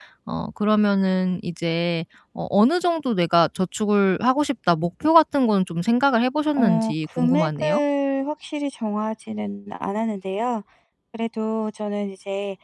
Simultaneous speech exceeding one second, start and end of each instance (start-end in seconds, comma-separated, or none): 6.6-7.8